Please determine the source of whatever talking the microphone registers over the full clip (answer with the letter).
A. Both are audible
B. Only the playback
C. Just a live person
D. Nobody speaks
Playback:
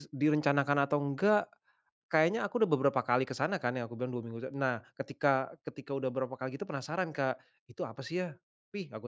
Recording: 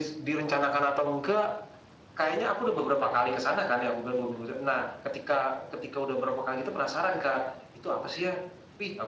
B